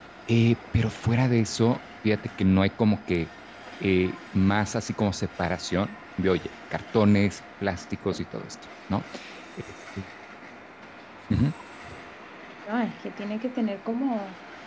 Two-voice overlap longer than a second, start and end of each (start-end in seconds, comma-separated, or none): none